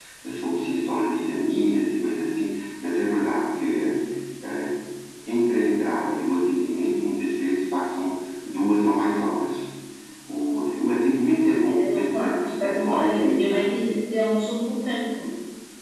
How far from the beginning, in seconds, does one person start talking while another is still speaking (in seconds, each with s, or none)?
11.2 s